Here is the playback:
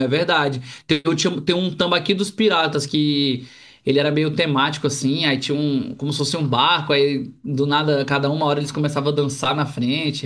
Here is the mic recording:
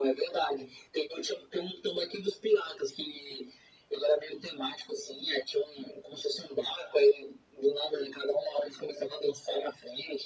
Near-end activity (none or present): none